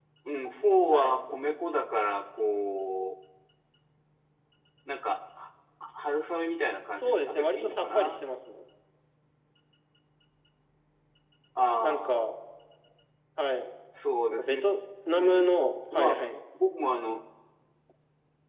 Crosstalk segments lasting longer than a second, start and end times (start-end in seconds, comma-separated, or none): 7.0-8.2